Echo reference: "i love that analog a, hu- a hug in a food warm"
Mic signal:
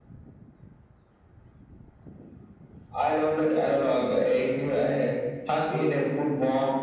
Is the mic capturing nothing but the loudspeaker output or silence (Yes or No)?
Yes